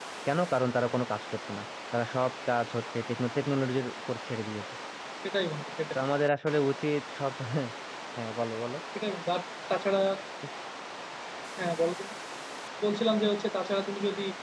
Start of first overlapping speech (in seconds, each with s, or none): none